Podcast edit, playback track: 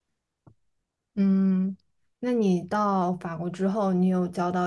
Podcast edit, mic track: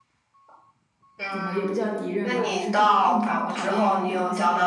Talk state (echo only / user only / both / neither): both